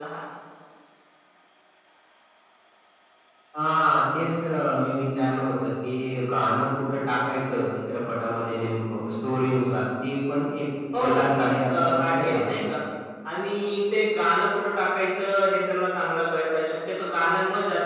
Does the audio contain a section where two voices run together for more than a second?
Yes, from 10.9 s

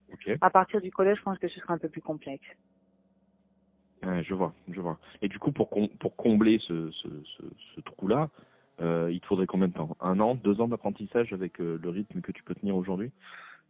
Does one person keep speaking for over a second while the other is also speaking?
No

